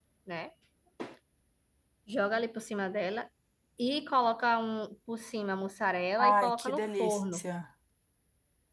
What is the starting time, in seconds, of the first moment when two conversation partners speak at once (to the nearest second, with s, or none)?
6 s